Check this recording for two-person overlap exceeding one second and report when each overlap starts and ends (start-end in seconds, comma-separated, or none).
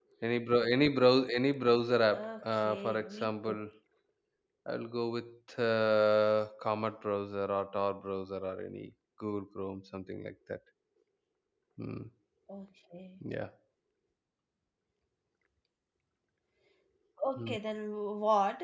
2.1-3.6